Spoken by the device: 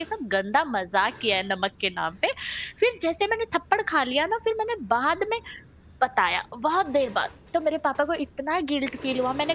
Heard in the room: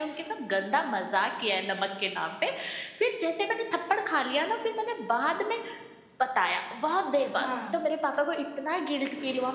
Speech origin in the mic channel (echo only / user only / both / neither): both